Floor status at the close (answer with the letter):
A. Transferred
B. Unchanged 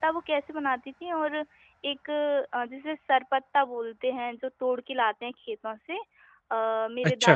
B